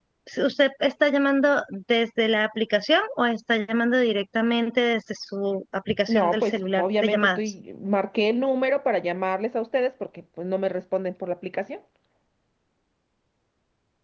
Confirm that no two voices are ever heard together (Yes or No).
No